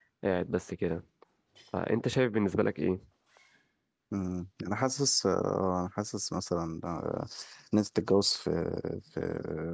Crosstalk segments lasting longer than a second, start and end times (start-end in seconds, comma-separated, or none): none